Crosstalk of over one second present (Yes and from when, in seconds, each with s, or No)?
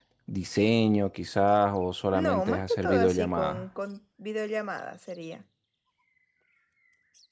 Yes, from 2.1 s